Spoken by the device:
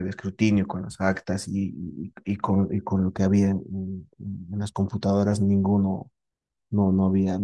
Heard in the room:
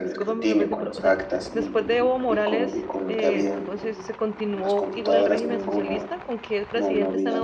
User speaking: Yes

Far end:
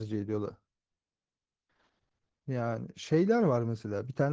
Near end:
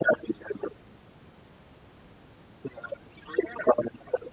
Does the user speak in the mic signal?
No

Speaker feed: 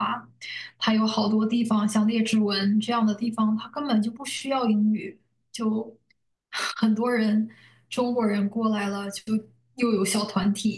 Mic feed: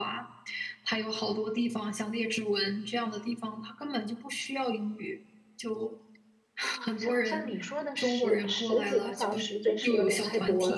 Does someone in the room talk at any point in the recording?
Yes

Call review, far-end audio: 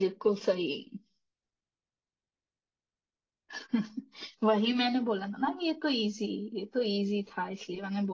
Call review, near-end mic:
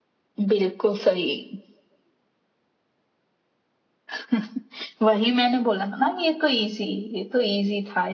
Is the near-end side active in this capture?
No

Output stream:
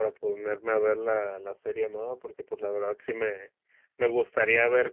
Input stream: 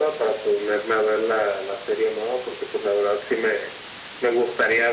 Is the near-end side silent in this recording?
Yes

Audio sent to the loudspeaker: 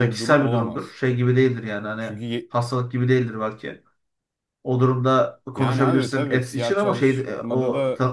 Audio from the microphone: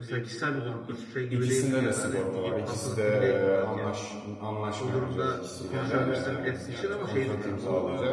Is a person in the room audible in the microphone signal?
Yes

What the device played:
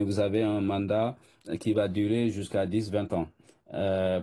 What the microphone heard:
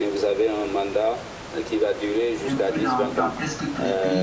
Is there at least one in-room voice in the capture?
Yes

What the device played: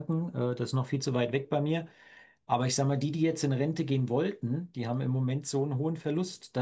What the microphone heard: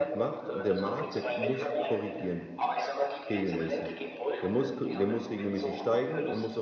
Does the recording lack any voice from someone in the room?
No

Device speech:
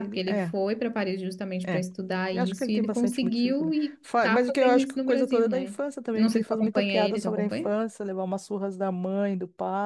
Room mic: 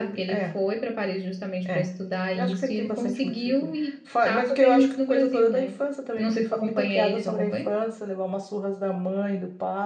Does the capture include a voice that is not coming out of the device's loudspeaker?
No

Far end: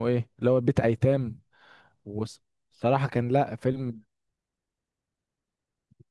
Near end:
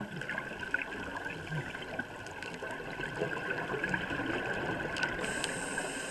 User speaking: No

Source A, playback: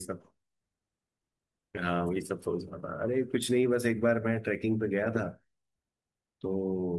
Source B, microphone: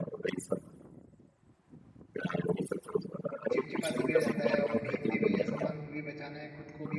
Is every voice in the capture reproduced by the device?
No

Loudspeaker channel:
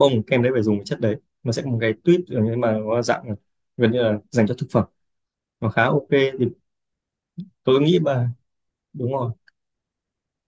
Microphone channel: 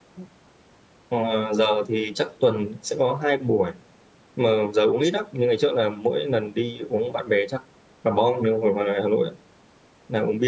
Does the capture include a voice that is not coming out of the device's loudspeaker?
Yes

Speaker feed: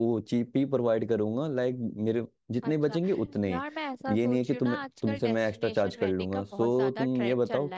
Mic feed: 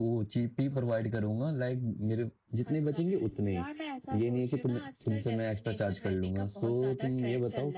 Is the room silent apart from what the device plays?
Yes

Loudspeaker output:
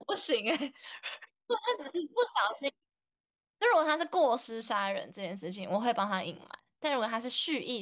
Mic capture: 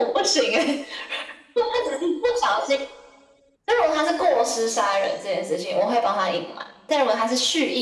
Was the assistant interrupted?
No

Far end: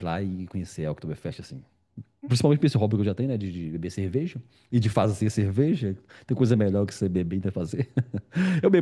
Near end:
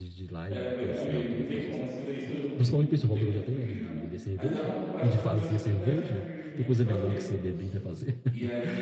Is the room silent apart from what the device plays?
No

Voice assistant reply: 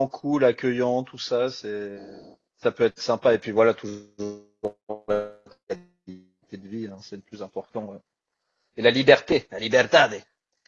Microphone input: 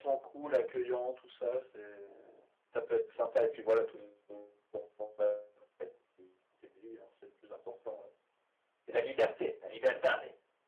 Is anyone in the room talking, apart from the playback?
No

